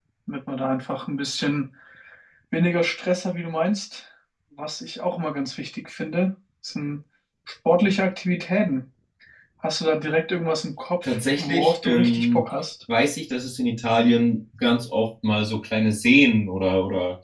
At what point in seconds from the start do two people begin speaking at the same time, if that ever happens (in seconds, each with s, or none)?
11.0 s